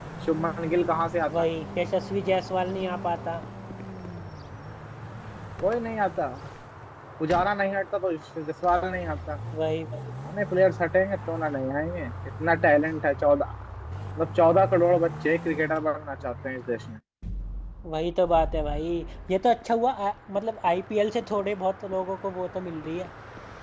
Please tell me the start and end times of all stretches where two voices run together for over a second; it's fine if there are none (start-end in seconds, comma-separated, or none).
none